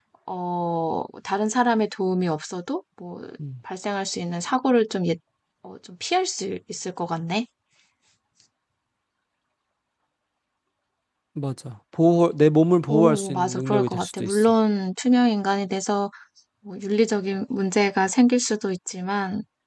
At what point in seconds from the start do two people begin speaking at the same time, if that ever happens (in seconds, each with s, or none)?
12.9 s